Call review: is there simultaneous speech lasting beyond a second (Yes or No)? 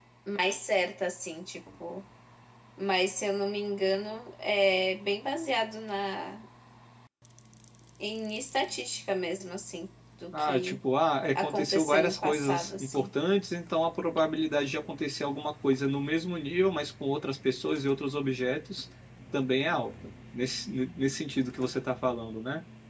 Yes